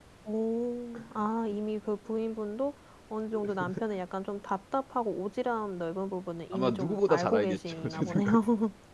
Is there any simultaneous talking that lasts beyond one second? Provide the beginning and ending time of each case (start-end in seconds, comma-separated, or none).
6.5-8.3